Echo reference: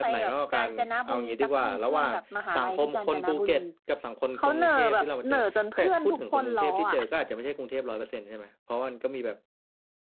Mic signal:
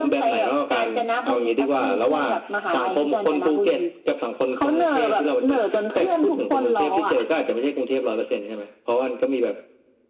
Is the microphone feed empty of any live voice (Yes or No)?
Yes